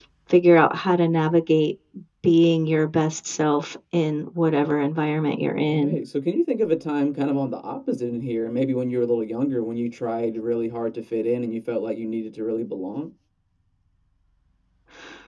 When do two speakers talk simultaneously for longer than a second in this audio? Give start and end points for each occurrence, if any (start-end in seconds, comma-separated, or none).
none